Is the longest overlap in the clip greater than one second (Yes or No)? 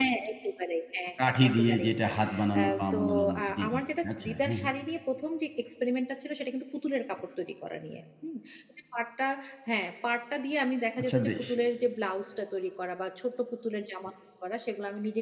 Yes